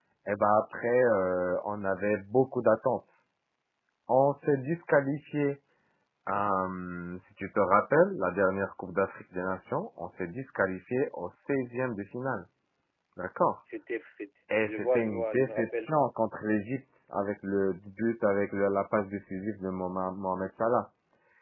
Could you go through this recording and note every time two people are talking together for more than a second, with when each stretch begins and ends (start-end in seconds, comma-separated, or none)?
14.6-15.9